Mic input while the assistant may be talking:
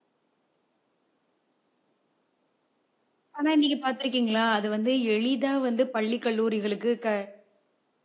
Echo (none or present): none